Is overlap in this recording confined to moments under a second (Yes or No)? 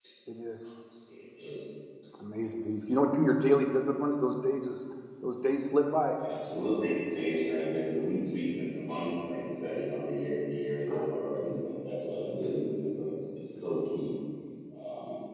Yes